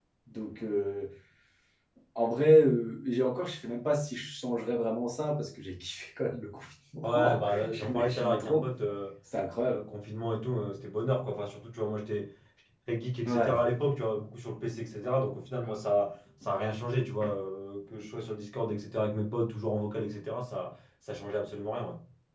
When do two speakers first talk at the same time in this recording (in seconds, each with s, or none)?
7.0 s